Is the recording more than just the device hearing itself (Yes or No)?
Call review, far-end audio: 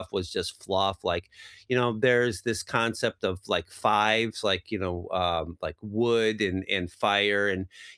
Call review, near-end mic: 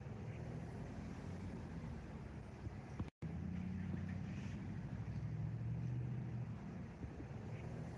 No